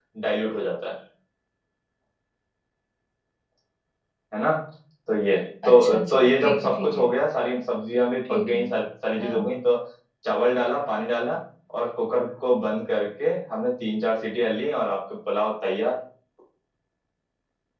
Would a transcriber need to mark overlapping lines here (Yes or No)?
Yes